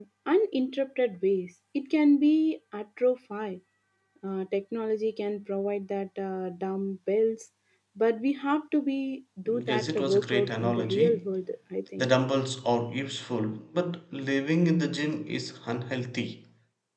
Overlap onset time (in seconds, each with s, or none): 9.5 s